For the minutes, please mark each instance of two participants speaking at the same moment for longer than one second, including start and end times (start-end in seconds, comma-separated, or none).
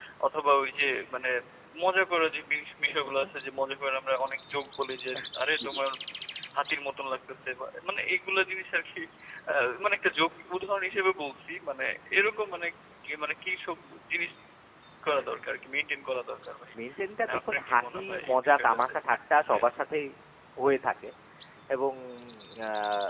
17.2-18.8